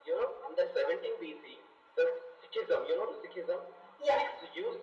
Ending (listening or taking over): listening